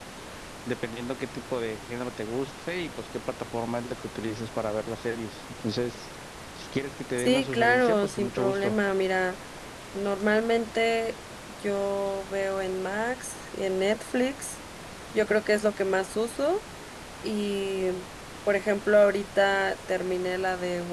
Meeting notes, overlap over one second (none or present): present